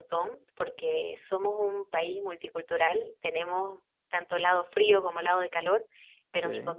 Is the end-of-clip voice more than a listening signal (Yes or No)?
No